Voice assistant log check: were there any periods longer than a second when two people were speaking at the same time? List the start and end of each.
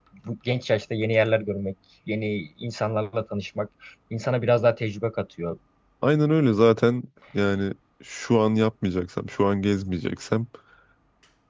none

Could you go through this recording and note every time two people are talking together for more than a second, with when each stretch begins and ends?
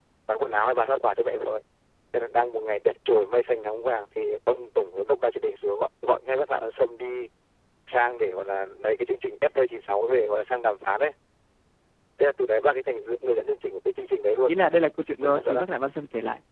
none

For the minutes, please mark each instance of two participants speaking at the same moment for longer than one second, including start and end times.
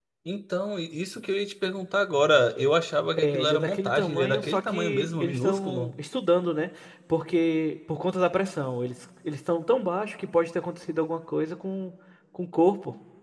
3.2-5.9

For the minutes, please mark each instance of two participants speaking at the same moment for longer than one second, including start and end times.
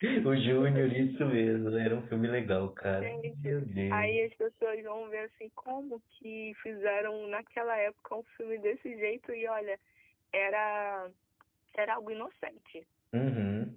none

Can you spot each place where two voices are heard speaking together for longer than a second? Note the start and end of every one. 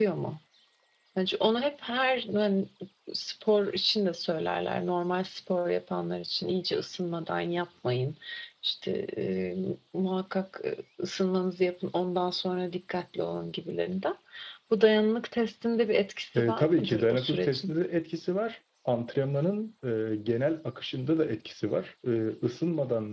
16.4-17.7

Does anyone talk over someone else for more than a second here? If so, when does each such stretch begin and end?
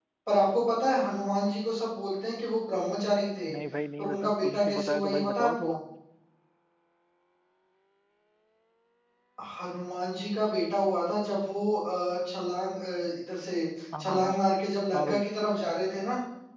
4.0-5.7

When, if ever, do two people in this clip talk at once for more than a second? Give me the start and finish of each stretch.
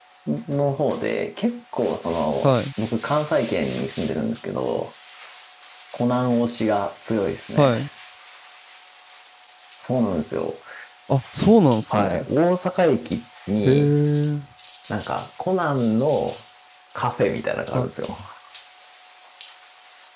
none

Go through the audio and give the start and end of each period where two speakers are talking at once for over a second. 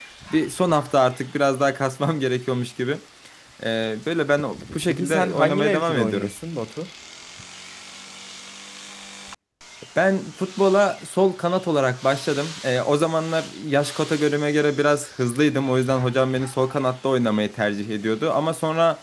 4.9-6.3

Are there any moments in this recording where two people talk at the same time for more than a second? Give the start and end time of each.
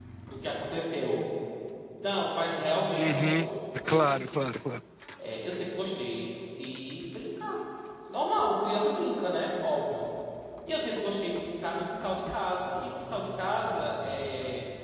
3.0-4.2

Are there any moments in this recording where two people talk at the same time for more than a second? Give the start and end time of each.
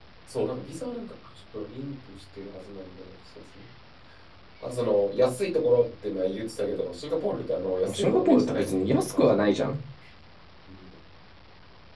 7.8-9.5

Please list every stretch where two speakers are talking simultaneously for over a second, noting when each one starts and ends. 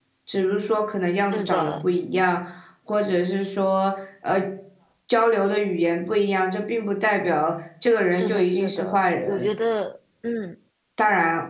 8.2-9.5

